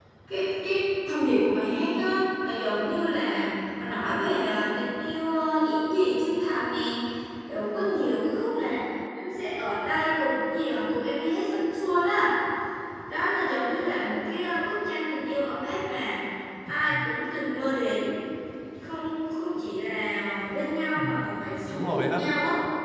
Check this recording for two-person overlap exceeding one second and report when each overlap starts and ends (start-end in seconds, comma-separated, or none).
21.0-22.3